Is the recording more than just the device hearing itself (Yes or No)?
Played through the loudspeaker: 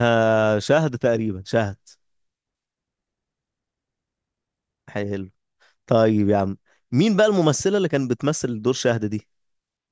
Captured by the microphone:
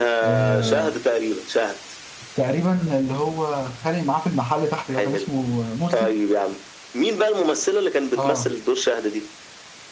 Yes